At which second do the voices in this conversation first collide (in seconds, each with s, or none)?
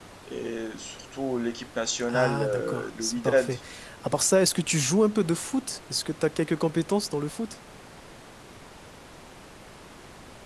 2.1 s